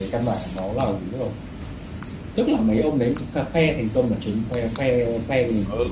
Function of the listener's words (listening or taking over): taking over